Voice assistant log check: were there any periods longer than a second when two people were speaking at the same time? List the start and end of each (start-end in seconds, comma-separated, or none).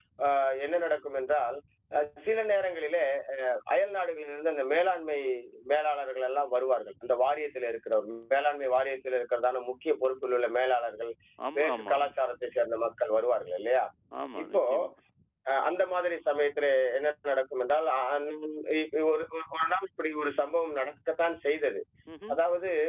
none